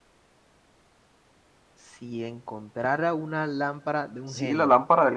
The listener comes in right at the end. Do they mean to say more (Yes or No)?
Yes